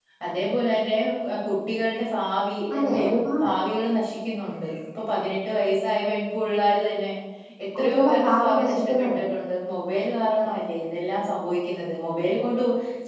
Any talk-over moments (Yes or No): Yes